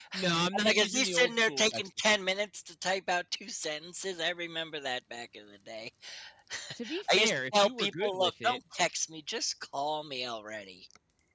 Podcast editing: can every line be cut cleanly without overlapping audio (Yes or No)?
No